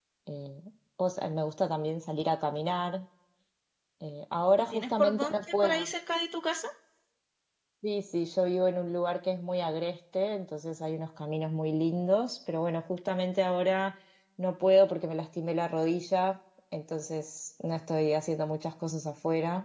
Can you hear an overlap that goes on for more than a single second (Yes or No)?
Yes